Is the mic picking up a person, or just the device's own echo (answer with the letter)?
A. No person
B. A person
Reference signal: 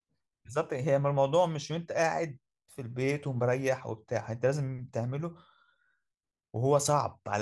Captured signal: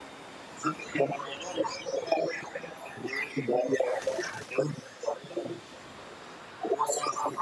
A